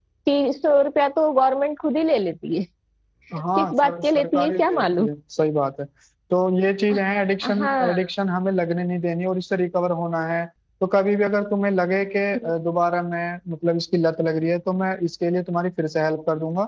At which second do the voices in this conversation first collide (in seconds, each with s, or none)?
3.6 s